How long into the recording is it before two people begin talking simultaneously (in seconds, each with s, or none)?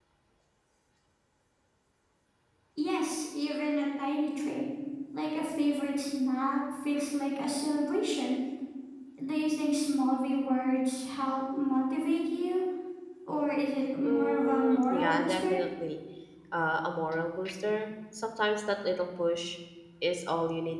14.0 s